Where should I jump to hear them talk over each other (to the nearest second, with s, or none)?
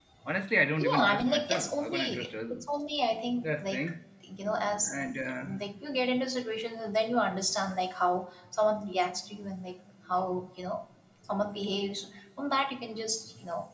1 s